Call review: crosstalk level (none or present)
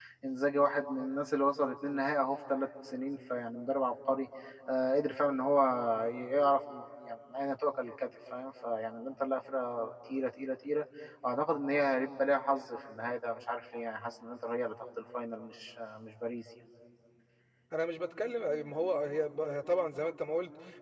none